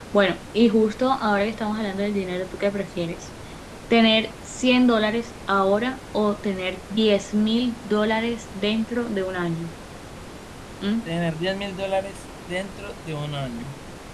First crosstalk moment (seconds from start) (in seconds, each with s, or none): none